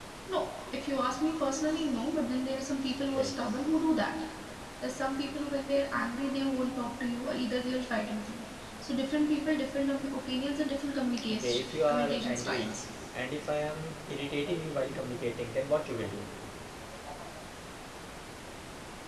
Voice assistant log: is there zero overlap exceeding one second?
No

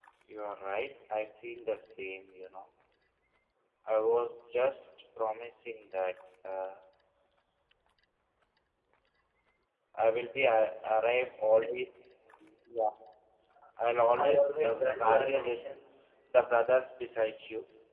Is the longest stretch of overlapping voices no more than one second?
No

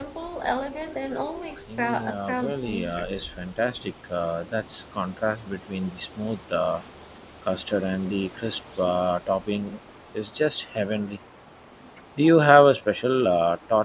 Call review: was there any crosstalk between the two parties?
Yes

